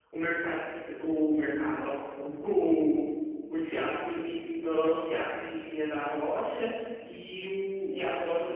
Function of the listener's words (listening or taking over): listening